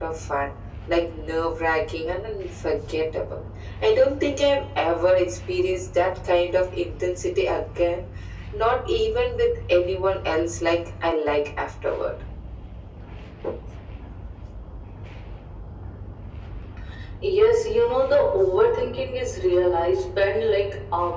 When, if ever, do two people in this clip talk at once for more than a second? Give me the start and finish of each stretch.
none

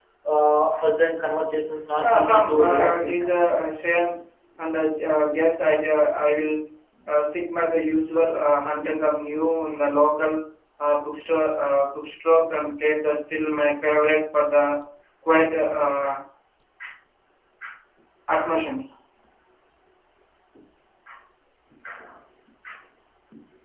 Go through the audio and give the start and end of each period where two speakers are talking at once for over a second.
2.0-3.4

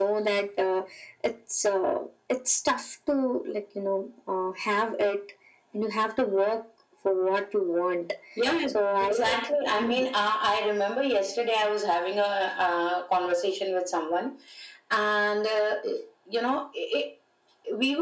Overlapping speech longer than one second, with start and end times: none

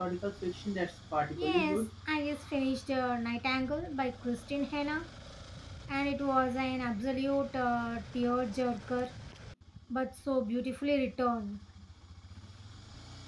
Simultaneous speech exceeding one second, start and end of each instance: none

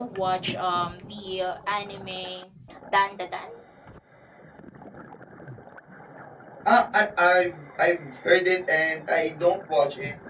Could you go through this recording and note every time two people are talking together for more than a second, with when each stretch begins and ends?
none

